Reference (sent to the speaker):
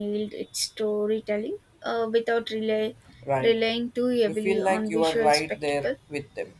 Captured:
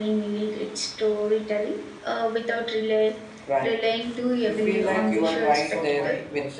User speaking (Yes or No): Yes